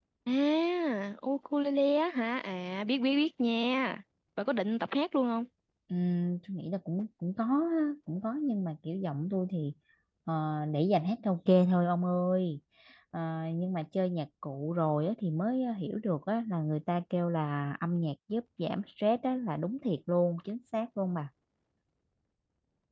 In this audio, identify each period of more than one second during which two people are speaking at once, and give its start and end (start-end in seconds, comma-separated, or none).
none